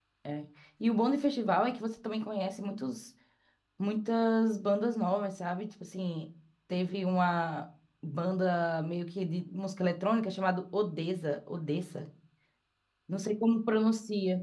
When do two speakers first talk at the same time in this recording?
none

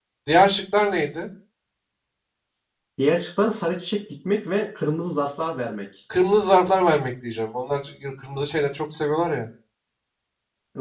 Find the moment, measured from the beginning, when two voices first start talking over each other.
none

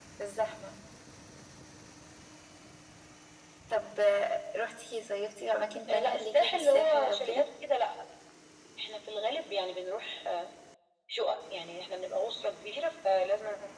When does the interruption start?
5.9 s

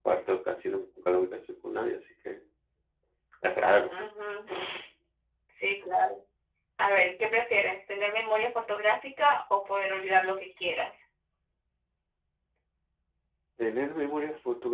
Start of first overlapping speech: none

